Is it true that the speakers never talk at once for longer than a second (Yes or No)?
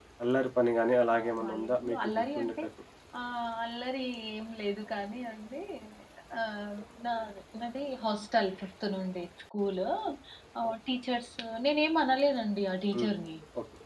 No